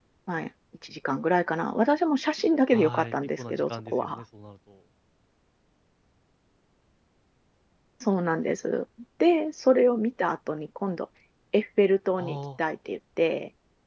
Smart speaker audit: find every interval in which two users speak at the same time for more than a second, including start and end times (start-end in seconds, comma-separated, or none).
2.7-4.2